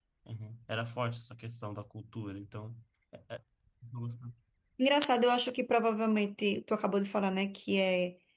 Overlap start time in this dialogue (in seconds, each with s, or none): none